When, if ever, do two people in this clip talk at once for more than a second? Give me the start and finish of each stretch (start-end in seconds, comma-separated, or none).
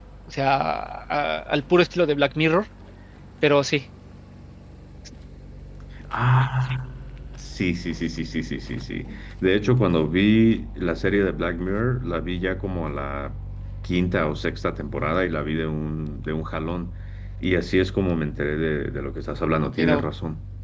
none